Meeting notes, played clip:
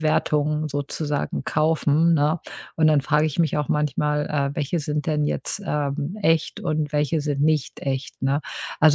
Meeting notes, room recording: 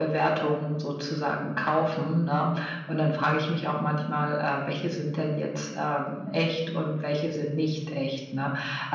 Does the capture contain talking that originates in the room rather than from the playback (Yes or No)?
No